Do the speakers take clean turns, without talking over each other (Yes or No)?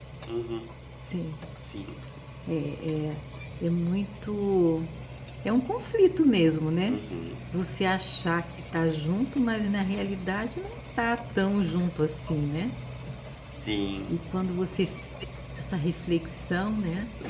Yes